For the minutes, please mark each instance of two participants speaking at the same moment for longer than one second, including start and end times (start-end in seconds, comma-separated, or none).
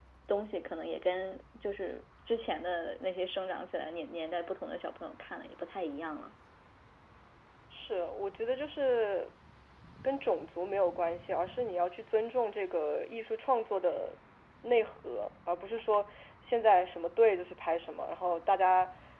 none